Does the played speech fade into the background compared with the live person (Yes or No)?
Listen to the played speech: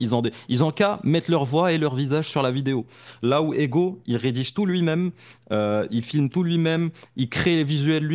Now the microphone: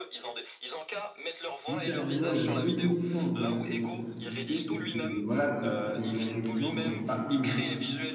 Yes